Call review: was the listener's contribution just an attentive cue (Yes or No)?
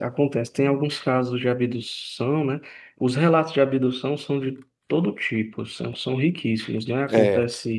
Yes